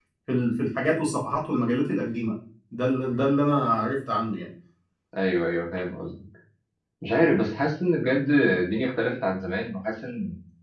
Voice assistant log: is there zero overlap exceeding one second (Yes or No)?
Yes